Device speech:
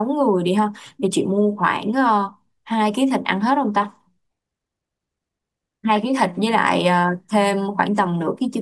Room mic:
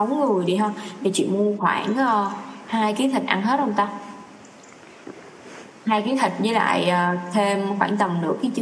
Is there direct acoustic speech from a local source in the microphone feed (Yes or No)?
No